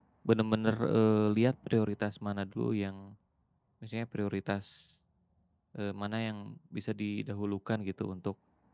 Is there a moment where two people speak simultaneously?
No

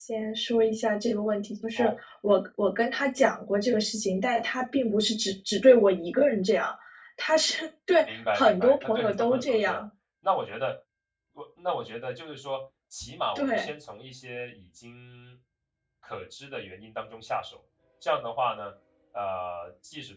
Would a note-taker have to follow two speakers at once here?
Yes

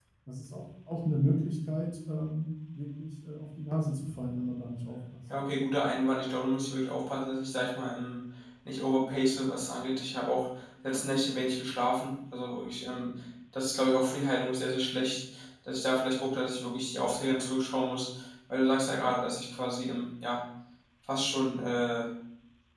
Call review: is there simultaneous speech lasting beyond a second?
No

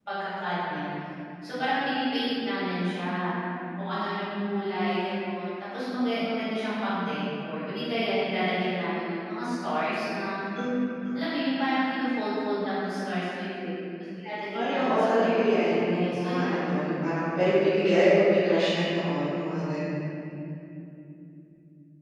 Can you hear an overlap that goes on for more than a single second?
Yes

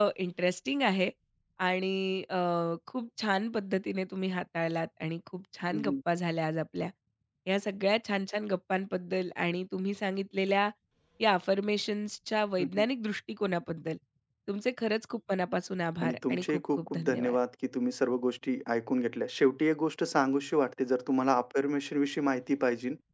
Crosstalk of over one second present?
Yes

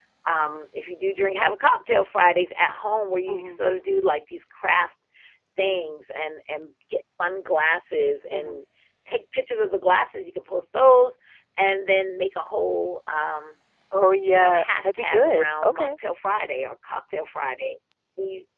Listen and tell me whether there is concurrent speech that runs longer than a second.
Yes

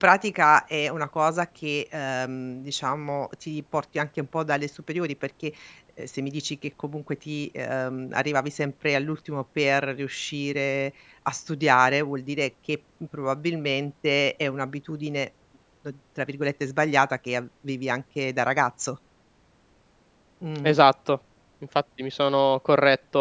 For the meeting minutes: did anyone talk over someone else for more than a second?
No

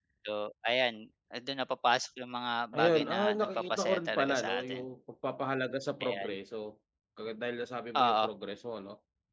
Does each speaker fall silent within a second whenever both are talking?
No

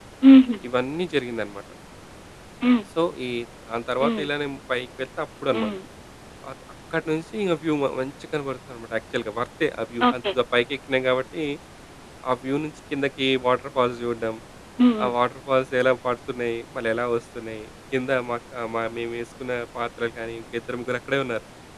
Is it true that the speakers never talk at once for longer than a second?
Yes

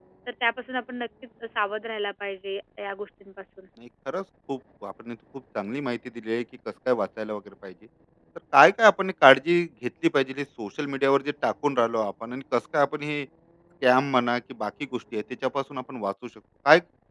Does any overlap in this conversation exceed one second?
No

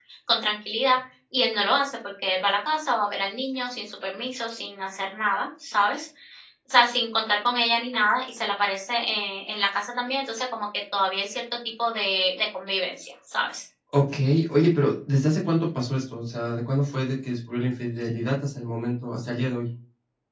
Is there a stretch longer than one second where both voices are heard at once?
No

